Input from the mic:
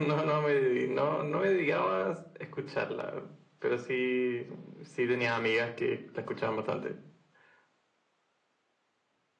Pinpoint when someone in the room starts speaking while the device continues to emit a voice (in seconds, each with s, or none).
none